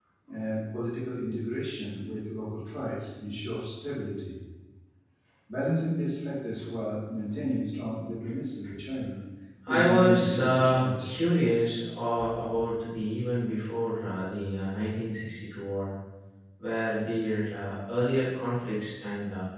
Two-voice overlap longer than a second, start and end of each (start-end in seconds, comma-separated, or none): 9.7-11.2